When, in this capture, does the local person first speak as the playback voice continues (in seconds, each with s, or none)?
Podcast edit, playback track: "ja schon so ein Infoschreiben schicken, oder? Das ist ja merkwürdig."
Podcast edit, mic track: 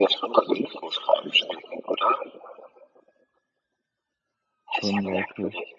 4.7 s